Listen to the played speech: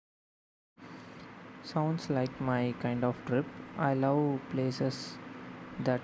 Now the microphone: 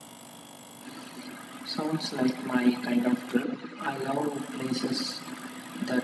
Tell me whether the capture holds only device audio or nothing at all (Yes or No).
Yes